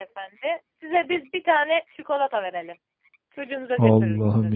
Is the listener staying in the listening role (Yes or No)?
No